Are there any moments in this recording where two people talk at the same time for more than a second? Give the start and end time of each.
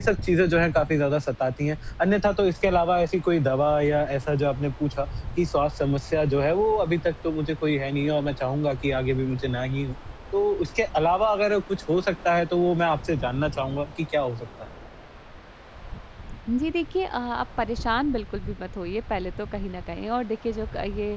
none

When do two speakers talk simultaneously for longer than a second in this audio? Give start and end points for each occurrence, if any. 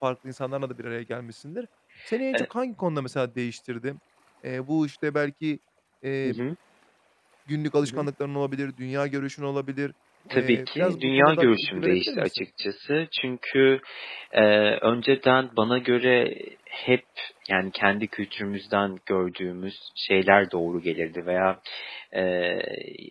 10.3-12.4

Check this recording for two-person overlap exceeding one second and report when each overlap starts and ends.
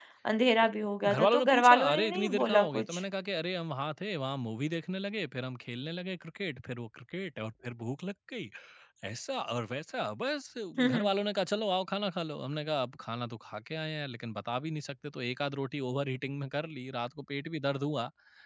1.1-3.0

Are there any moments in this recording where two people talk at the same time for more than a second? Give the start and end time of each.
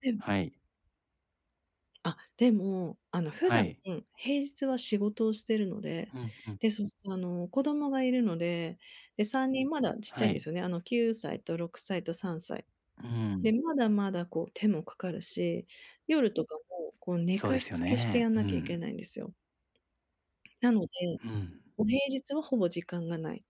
17.4-18.8

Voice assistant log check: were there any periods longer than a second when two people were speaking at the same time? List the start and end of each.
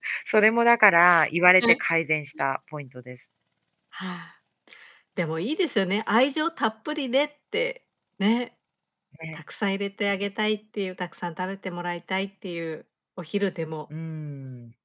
none

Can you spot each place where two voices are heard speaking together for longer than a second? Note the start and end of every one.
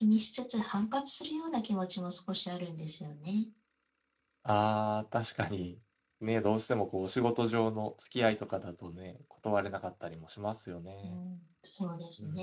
none

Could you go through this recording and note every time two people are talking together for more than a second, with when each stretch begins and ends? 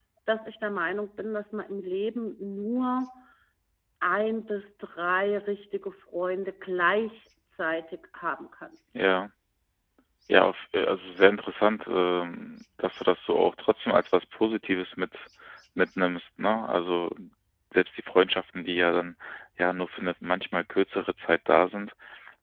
none

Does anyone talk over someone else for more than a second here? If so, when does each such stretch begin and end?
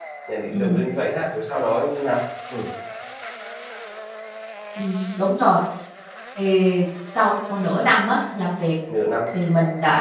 none

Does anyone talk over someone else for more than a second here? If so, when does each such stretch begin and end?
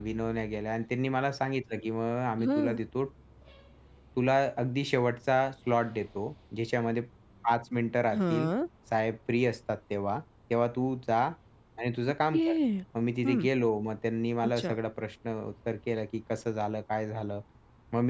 none

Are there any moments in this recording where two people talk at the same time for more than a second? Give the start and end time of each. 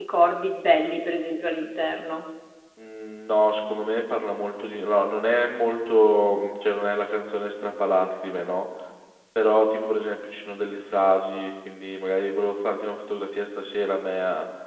none

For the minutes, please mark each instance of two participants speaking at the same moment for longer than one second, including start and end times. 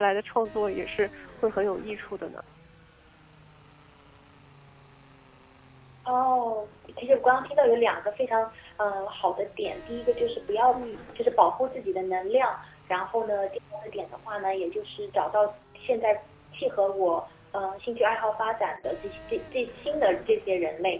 none

